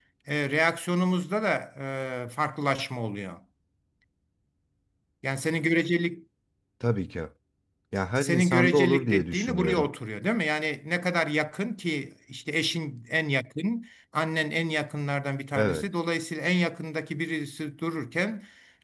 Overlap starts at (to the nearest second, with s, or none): 8 s